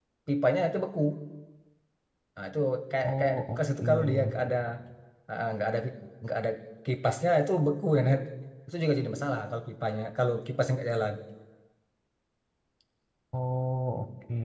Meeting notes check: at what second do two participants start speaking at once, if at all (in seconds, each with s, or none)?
3.0 s